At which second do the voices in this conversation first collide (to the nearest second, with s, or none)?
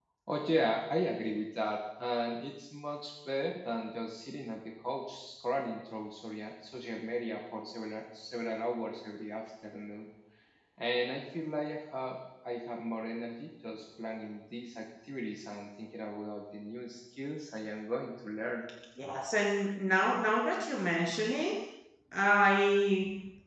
none